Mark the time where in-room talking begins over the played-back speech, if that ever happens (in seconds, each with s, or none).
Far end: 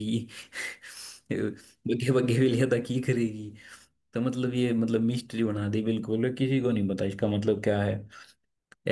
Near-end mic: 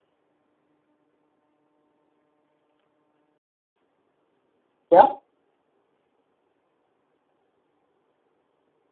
4.7 s